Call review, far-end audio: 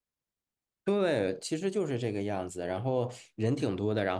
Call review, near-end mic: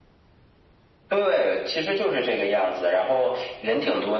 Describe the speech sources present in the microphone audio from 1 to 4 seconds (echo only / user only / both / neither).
echo only